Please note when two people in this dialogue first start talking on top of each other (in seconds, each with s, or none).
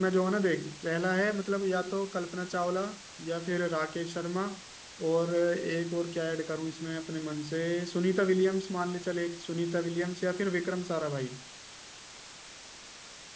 none